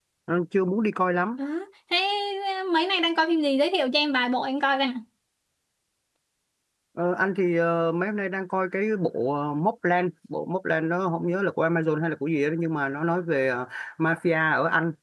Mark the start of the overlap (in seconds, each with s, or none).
none